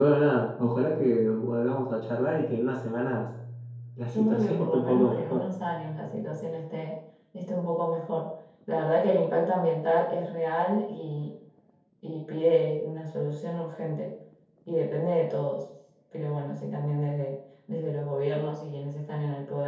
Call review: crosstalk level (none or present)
present